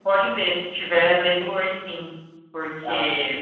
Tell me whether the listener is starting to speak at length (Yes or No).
No